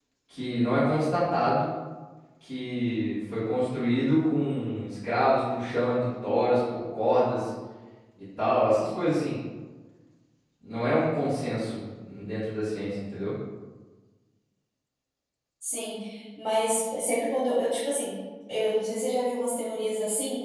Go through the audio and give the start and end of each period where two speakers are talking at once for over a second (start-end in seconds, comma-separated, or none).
none